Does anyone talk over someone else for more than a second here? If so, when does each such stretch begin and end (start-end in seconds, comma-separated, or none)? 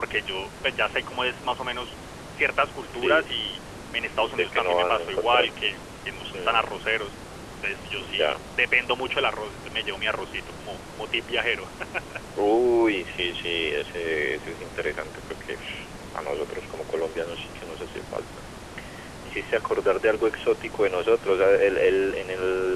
4.2-5.5